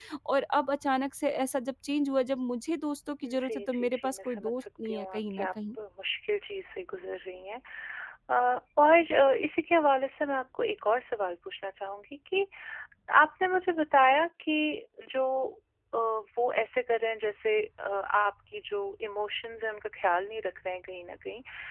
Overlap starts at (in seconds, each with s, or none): 3.2 s